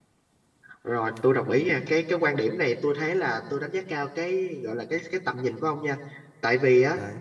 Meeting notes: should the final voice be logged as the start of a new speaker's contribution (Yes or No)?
No